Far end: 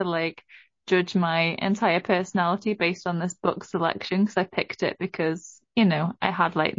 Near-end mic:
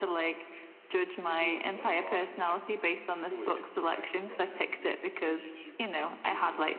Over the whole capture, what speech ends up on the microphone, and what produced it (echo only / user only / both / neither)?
both